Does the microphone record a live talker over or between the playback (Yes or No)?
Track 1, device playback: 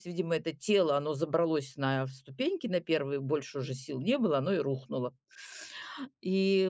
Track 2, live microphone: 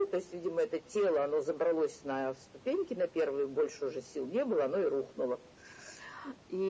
No